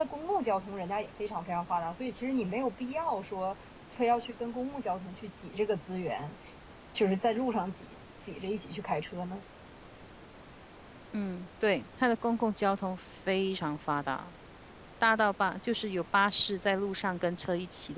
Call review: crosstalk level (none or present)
none